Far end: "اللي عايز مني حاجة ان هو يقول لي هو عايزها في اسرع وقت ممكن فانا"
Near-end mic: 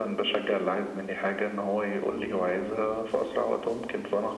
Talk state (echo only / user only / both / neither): echo only